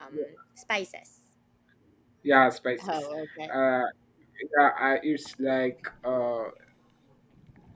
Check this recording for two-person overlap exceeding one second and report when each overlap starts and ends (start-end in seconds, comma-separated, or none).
none